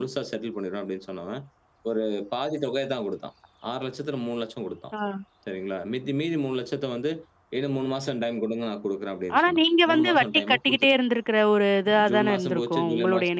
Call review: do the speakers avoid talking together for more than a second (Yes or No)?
No